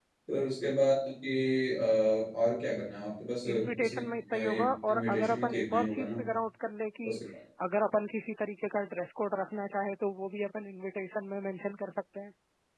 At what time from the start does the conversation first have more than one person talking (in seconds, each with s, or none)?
3.5 s